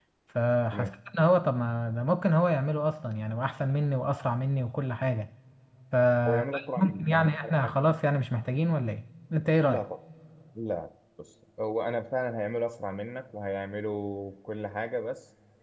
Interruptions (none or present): present